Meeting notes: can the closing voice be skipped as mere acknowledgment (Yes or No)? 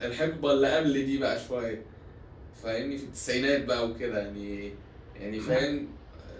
Yes